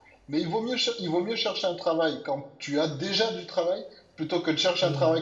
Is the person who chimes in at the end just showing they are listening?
Yes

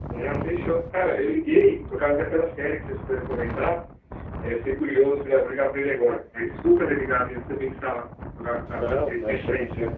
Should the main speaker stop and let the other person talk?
Yes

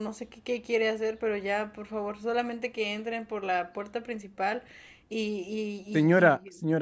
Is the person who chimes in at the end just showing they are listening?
No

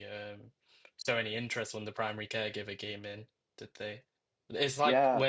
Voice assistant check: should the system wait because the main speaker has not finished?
Yes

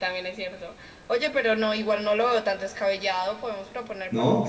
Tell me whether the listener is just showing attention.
No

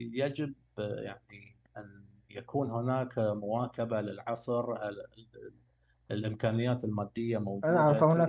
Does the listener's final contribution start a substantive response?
Yes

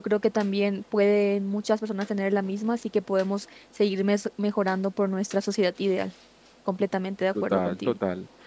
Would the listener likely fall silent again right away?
No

